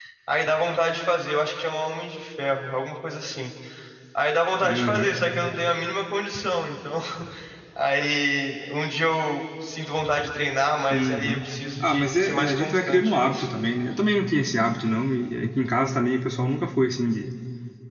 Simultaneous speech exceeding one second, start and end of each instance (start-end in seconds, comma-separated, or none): 11.8-13.5